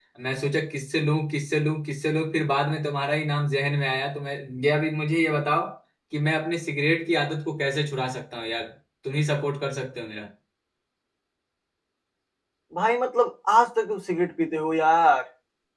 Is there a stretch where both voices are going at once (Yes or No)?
No